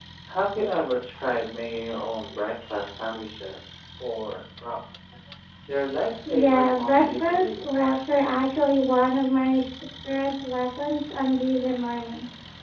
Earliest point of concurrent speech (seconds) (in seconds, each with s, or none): 6.4 s